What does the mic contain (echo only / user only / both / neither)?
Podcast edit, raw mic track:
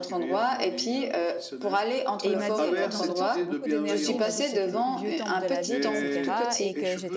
both